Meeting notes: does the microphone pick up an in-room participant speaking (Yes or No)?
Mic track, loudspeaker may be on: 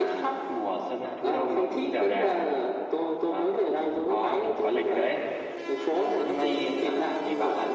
Yes